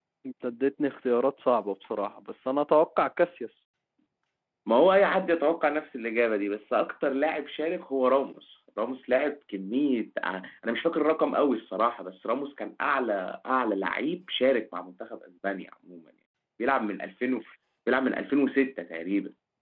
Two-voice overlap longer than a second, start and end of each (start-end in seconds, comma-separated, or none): none